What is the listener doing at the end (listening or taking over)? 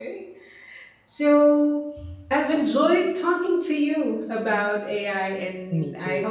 listening